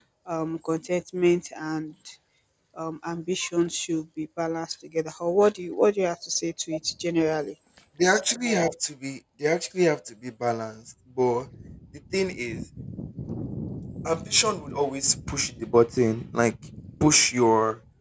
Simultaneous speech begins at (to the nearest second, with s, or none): none